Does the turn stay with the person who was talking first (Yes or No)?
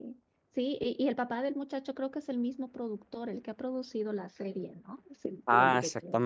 No